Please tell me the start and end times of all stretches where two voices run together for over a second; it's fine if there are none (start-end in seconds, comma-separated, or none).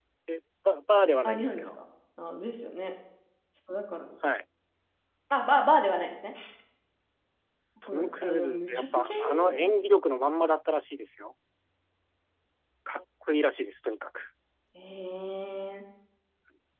7.9-9.7